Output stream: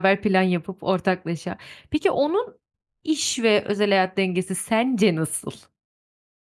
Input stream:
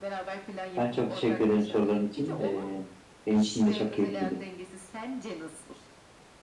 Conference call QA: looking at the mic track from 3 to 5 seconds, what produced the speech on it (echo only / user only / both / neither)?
both